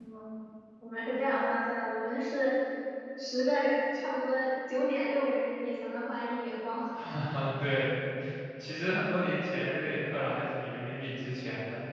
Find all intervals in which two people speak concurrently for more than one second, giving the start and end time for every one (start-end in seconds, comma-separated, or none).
none